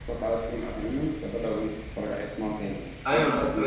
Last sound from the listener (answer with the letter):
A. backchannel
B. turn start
B